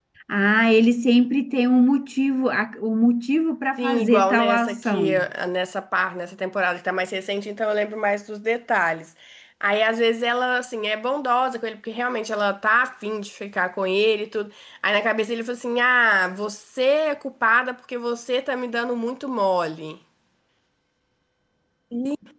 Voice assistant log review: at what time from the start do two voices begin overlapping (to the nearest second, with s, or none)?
4 s